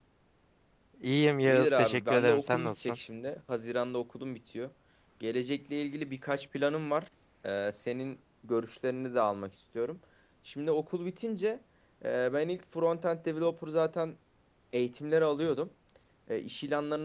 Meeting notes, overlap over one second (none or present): present